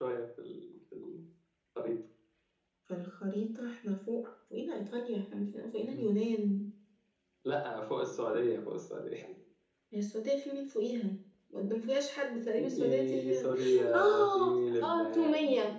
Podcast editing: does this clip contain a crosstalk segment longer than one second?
Yes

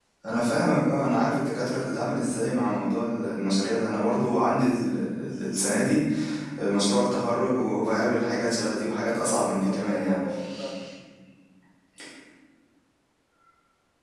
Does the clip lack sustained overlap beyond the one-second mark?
No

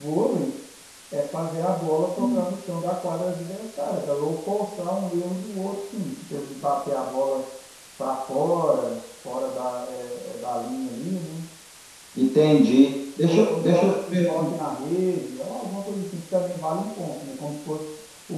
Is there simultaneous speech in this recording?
Yes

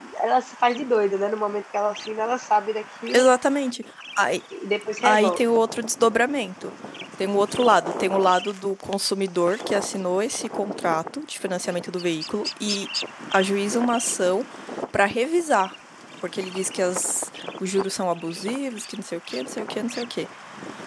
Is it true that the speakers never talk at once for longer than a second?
Yes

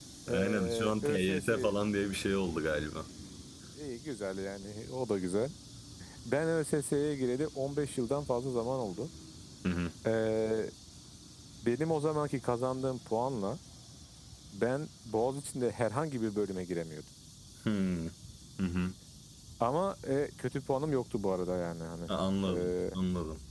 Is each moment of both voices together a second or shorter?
No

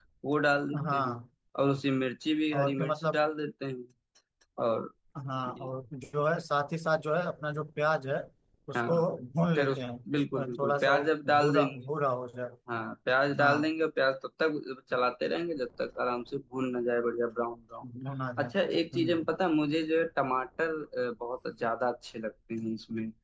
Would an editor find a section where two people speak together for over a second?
Yes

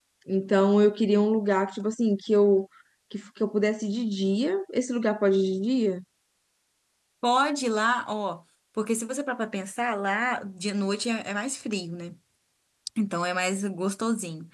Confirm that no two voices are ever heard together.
Yes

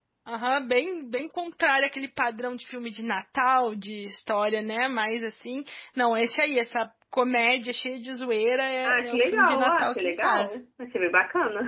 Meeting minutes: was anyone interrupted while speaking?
Yes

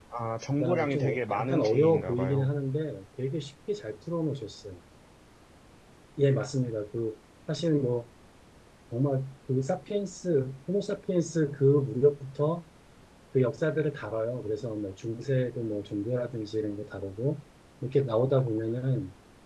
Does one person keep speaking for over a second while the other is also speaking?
Yes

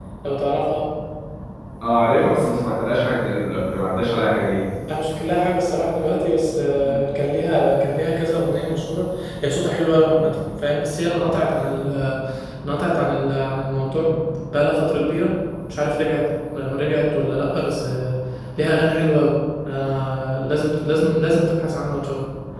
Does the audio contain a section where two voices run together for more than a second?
No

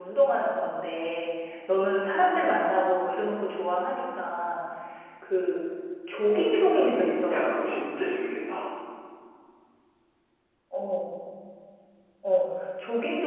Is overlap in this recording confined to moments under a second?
No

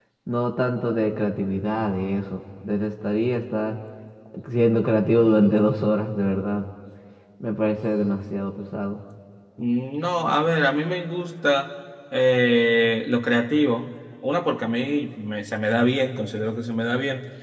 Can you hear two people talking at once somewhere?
No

